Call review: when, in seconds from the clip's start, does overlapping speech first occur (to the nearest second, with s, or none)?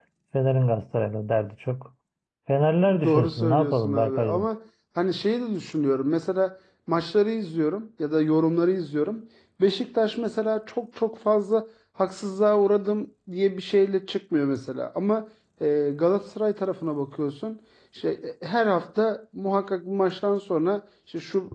3 s